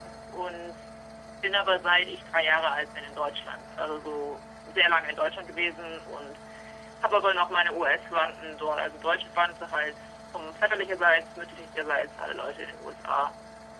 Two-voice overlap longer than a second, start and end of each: none

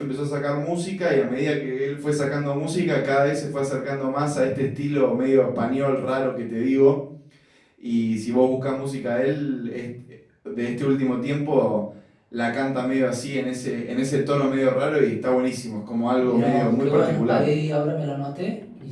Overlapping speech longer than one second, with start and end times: 16.2-17.5

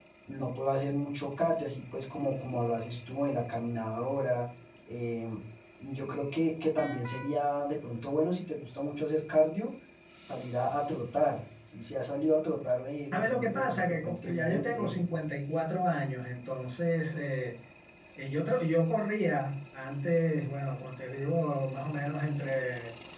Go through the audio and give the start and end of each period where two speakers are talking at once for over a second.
13.1-15.1

